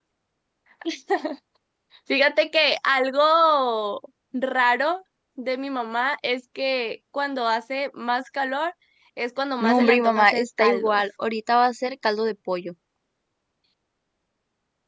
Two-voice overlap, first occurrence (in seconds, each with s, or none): 9.6 s